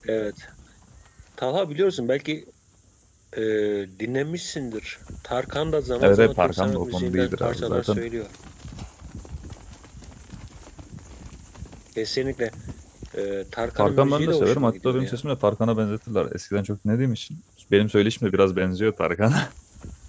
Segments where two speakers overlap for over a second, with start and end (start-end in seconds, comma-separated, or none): 6.0-8.0, 13.8-15.2